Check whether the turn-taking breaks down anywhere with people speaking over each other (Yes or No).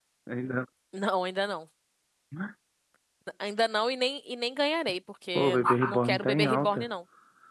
Yes